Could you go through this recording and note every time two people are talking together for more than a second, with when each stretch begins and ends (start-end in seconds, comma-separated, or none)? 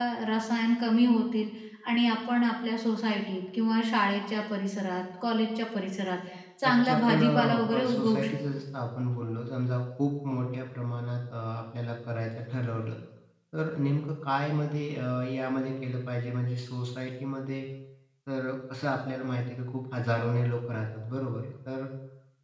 6.6-8.6